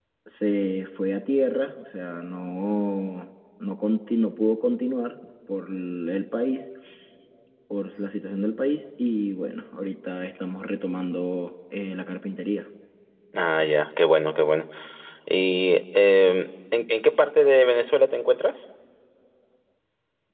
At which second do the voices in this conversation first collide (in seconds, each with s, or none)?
none